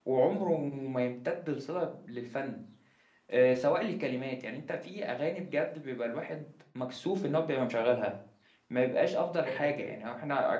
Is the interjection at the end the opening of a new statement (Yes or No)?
No